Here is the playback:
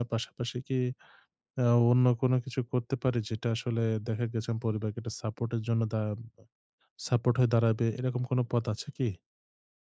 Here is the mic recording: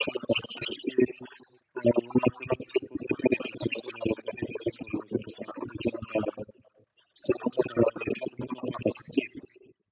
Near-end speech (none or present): none